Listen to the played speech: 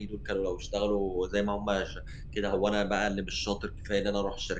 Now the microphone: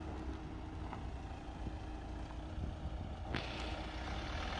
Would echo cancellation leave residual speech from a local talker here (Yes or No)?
No